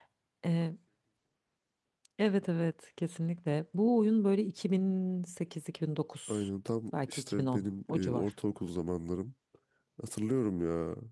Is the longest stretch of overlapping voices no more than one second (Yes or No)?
No